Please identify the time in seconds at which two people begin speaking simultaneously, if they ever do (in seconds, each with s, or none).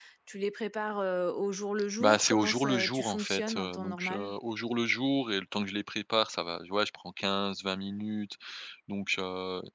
2.0 s